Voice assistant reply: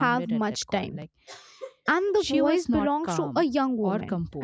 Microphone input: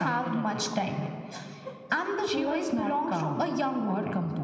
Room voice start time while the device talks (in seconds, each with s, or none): none